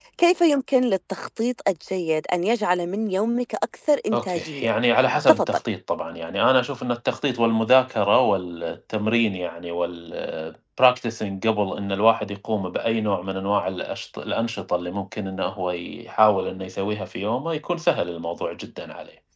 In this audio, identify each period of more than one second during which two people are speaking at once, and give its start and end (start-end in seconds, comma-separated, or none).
none